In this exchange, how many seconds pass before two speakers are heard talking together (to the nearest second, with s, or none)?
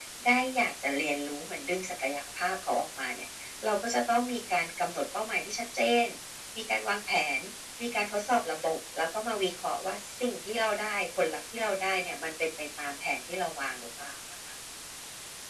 none